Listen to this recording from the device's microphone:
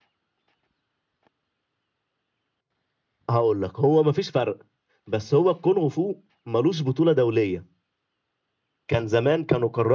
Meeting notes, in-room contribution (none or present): none